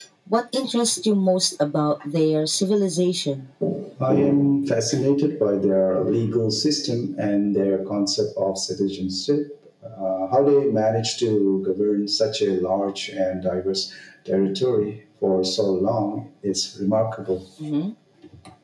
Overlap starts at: none

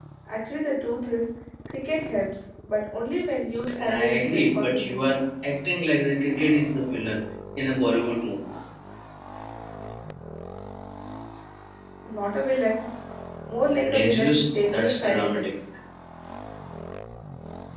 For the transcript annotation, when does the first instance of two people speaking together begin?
3.8 s

